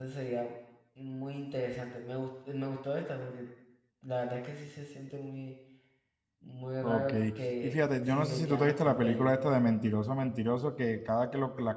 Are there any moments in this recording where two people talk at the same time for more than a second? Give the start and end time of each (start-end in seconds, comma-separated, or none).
7.6-9.4